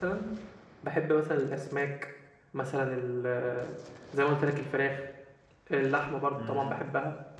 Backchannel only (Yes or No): Yes